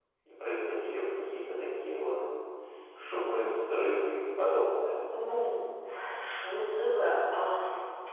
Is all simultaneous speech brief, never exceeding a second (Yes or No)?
Yes